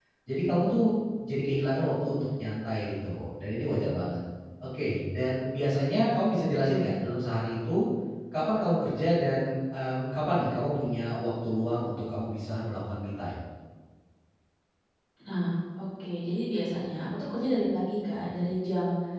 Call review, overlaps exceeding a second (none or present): none